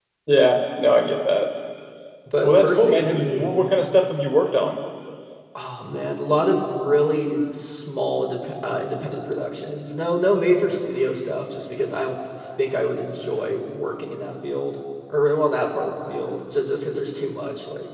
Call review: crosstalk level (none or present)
present